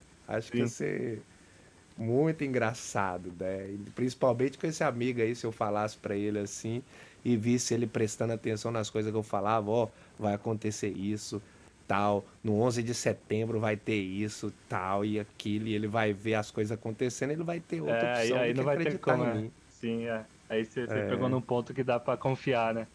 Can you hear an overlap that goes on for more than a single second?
Yes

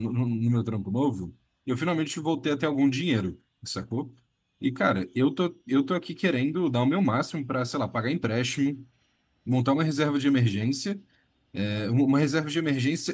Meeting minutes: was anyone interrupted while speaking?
No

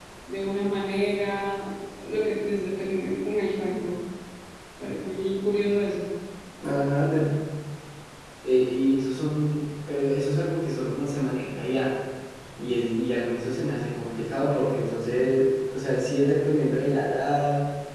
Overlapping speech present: No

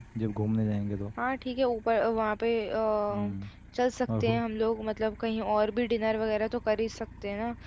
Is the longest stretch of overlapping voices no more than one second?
Yes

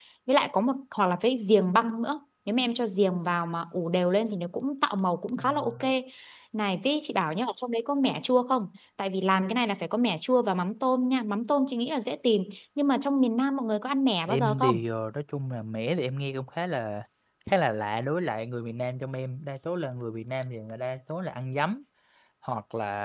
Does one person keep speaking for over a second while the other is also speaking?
No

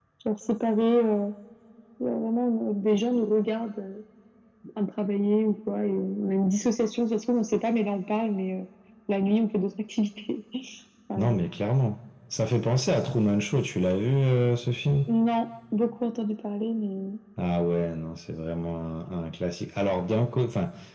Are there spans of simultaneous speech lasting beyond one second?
No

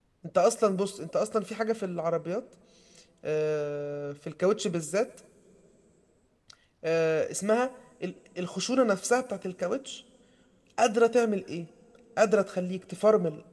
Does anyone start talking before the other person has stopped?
No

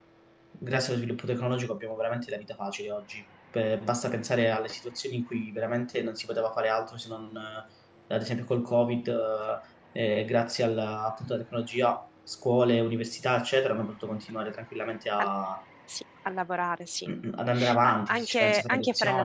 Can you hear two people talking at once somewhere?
Yes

